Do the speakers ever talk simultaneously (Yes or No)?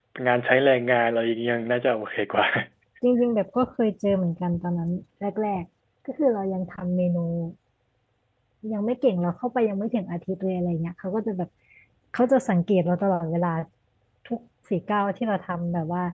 No